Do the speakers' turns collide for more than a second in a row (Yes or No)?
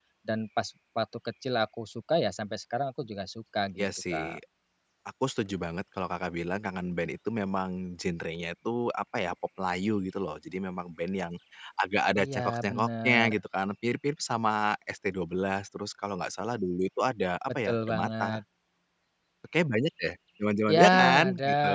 Yes